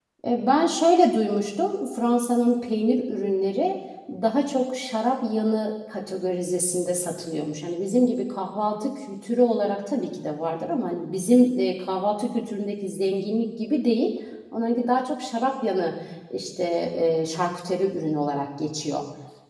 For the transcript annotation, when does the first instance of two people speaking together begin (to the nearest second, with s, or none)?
none